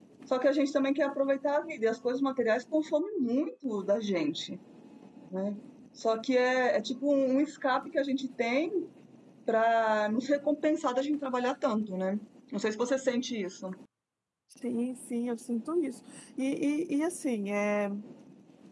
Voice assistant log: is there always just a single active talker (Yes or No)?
Yes